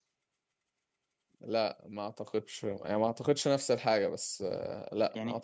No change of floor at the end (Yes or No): No